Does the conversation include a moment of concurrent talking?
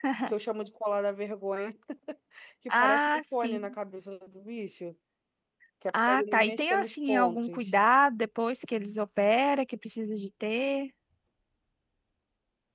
Yes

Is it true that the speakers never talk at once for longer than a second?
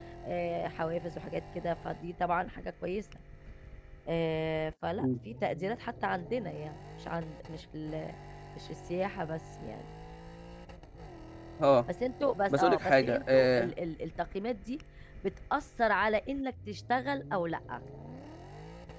No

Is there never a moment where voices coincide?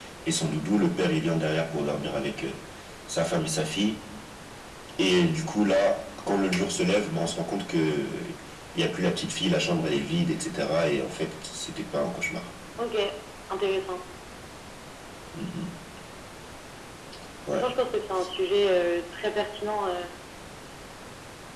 Yes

